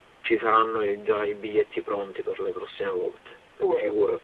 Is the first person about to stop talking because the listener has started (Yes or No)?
Yes